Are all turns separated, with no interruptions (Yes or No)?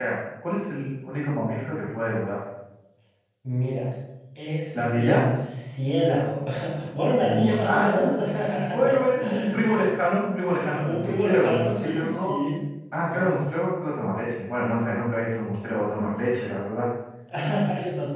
No